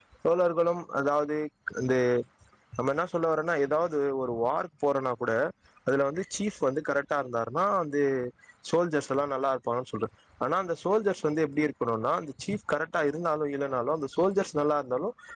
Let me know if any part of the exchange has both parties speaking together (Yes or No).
No